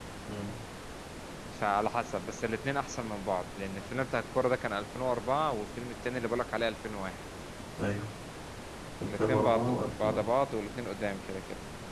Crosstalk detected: Yes, from 9.0 s

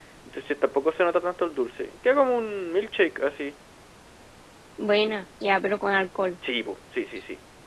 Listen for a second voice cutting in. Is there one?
No

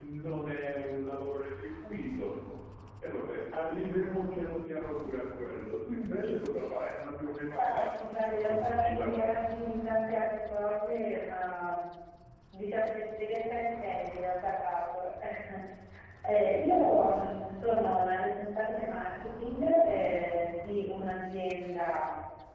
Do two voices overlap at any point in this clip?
Yes, from 7.6 s

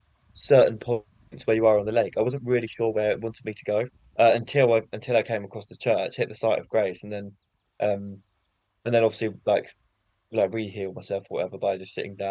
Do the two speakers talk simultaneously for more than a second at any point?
No

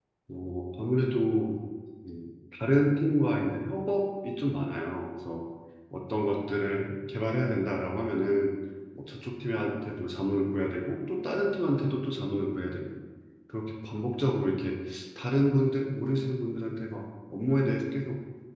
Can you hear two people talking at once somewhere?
No

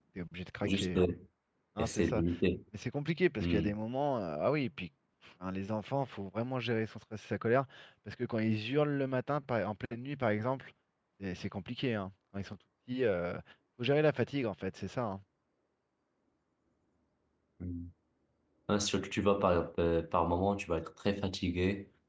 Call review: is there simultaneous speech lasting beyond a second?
No

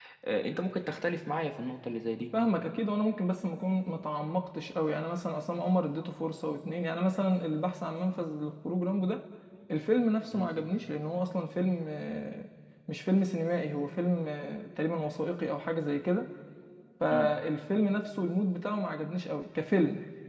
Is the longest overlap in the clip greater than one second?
No

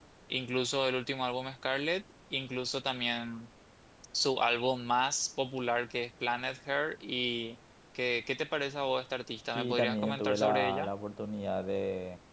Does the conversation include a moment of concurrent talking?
Yes, from 9.6 s

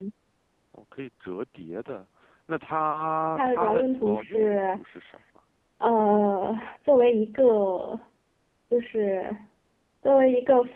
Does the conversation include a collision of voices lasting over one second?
Yes, from 3.4 s

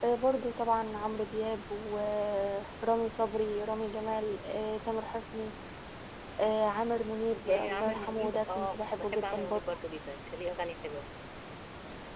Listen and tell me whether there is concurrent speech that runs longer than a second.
Yes, from 7.4 s

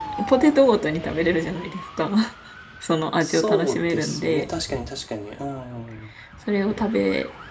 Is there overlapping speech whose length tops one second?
Yes, from 3.2 s

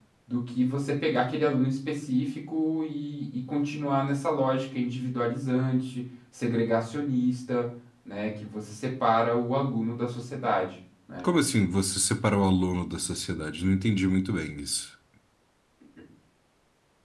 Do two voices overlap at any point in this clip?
No

